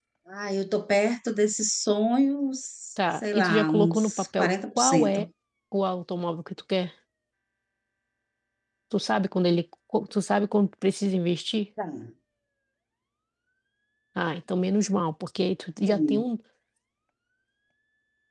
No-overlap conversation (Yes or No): No